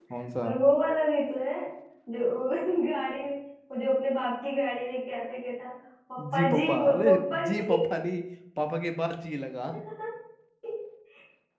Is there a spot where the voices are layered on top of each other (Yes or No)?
Yes